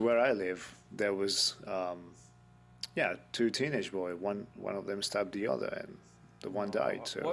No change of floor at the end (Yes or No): No